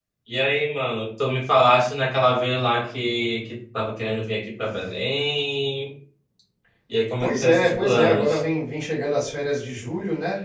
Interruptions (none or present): present